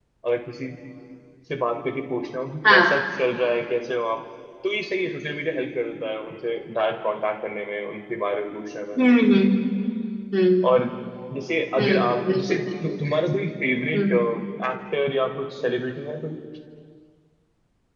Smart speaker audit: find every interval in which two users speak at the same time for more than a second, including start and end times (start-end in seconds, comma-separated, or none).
11.8-13.0